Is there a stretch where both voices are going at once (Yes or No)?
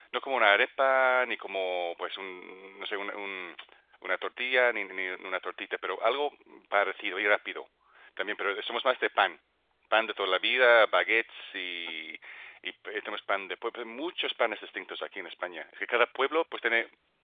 No